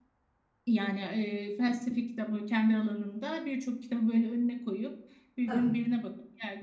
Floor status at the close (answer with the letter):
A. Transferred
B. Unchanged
B